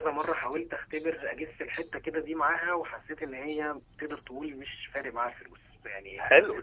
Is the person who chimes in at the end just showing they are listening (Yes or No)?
No